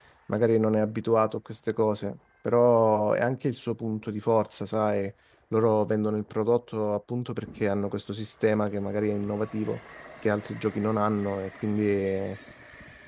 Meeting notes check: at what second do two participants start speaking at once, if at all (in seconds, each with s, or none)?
none